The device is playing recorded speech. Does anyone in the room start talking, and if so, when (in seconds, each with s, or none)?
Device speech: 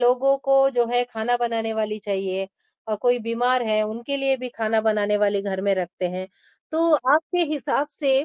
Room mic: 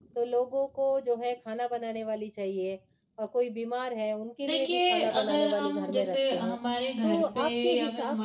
4.4 s